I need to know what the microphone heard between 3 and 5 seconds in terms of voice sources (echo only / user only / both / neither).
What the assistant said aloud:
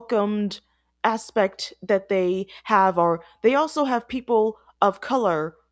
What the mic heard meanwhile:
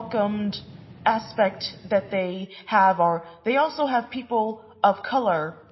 echo only